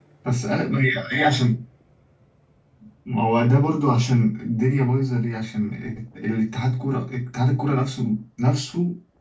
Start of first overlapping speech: none

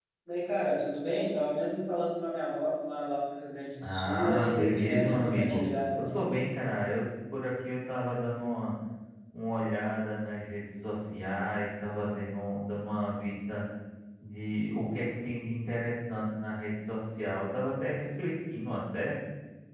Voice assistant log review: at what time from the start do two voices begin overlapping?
4 s

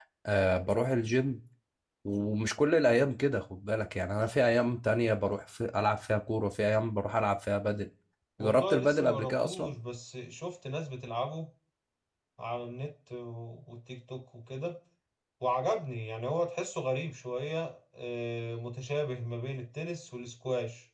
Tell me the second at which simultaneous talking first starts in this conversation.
8 s

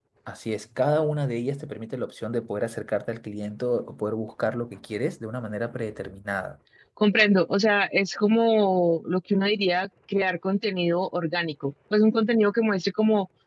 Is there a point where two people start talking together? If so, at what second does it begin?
none

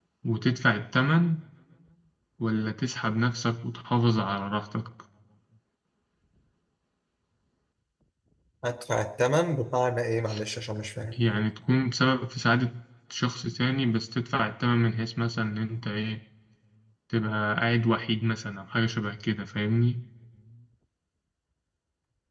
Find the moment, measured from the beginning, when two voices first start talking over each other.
none

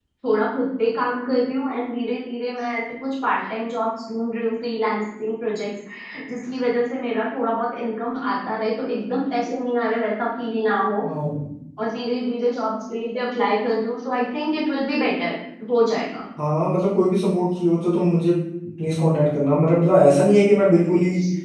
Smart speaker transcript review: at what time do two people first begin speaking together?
none

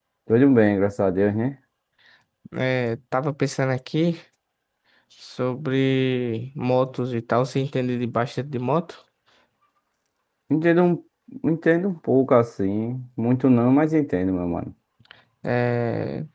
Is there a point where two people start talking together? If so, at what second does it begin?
none

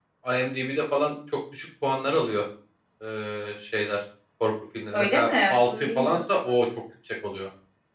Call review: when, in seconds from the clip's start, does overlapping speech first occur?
5 s

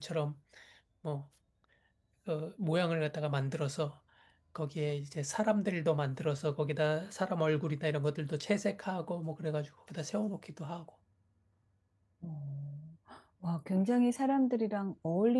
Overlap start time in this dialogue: none

